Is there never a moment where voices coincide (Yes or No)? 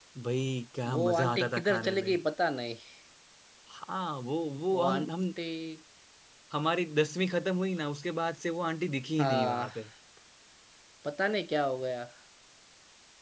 No